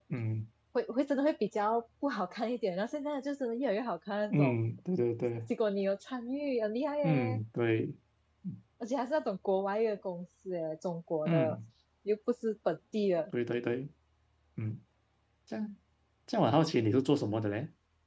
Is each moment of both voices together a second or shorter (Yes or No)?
Yes